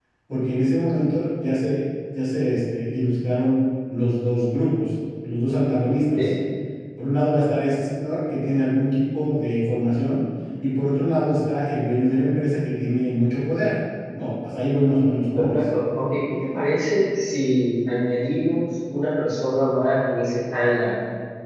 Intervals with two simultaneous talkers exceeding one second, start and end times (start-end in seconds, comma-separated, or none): none